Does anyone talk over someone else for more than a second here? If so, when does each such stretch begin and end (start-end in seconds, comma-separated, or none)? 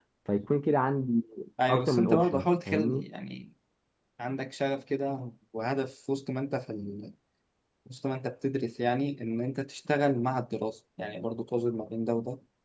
1.7-3.0